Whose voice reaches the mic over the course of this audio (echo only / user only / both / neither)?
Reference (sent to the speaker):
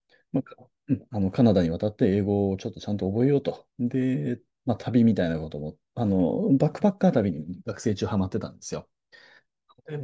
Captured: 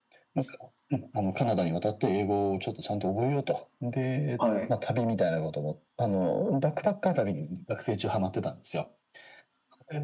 both